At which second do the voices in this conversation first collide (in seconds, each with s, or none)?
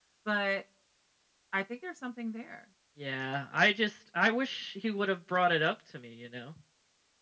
none